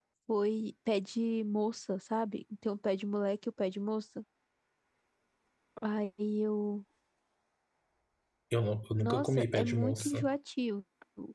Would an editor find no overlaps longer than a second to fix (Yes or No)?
No